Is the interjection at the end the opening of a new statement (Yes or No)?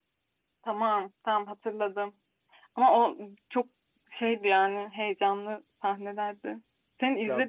No